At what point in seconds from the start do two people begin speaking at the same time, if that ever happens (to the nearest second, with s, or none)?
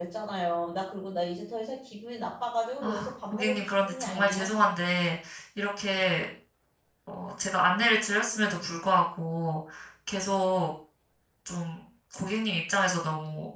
3 s